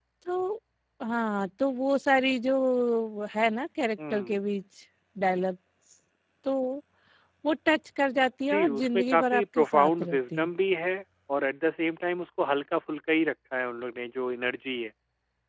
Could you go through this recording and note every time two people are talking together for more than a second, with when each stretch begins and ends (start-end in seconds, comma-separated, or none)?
8.5-10.5